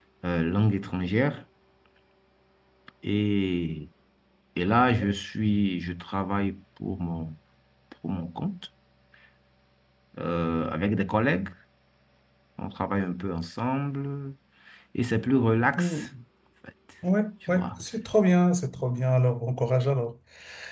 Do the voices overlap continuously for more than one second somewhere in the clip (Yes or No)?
No